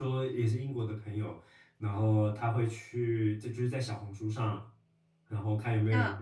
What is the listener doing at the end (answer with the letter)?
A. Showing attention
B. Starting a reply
A